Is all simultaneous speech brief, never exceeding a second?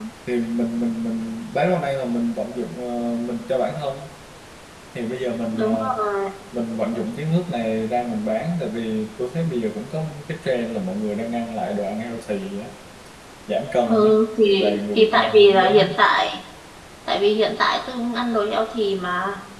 No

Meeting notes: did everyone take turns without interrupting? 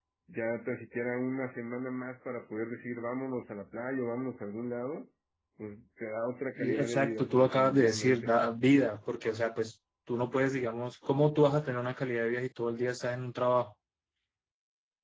No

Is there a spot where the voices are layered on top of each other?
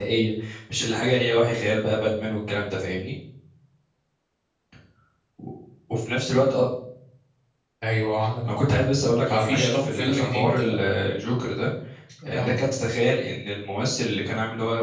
Yes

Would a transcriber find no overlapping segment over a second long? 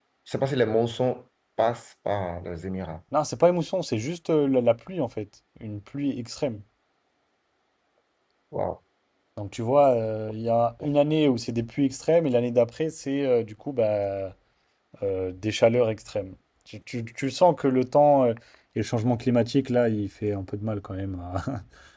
Yes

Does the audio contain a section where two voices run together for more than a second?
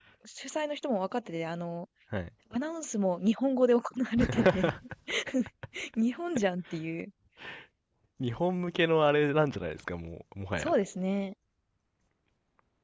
No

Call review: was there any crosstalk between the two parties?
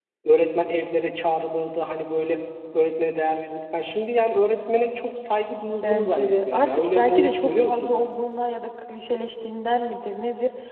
Yes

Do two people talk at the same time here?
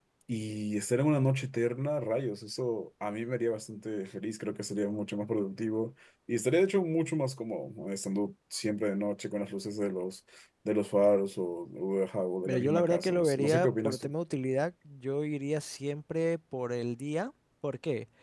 Yes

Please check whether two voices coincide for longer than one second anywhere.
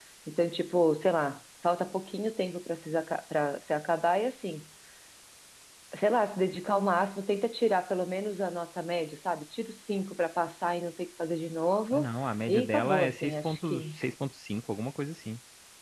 Yes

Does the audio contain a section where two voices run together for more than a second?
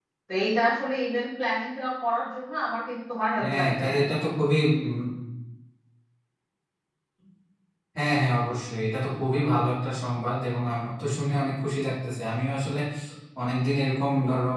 No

